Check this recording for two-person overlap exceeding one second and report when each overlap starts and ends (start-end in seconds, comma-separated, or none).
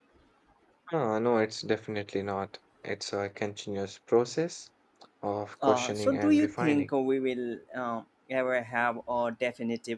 5.6-6.9